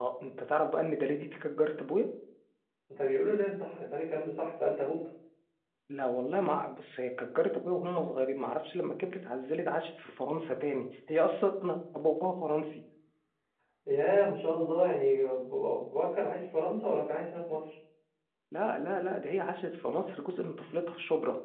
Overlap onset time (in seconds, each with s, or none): none